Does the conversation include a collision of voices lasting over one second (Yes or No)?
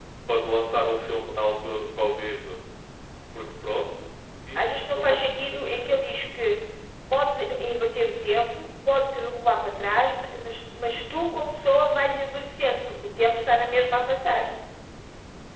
Yes